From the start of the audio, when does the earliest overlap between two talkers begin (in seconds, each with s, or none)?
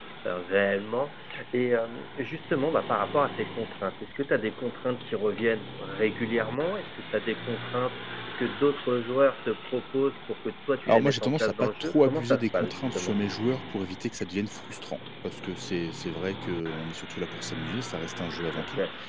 10.9 s